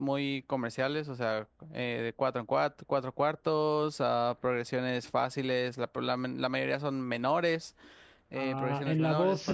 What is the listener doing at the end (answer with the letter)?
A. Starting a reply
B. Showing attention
A